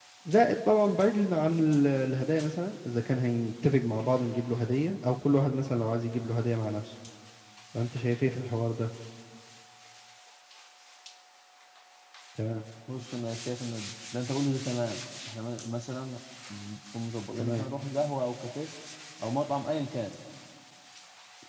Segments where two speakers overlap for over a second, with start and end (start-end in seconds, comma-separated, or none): none